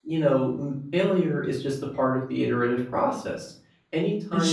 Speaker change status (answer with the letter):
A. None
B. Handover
A